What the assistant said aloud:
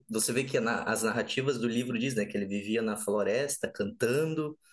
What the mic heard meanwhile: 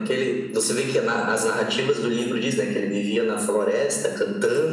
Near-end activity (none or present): none